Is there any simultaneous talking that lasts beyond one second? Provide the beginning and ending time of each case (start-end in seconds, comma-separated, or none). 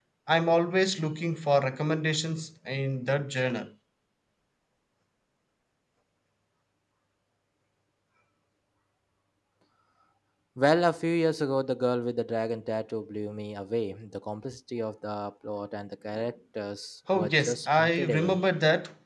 17.1-18.4